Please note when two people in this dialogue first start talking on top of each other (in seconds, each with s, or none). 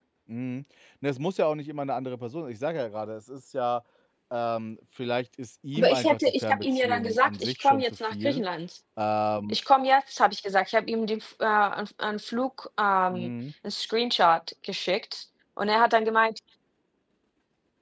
5.8 s